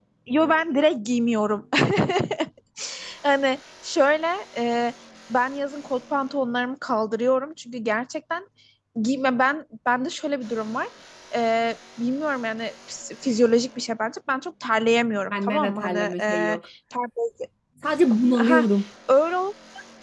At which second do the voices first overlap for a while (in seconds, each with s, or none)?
15.3 s